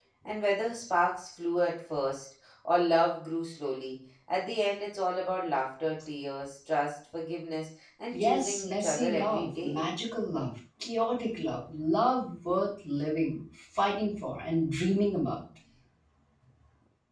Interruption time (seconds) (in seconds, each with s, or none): 8.1 s